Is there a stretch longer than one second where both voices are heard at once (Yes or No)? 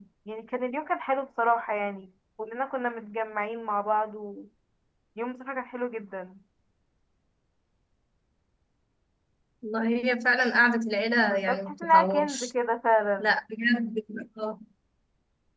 Yes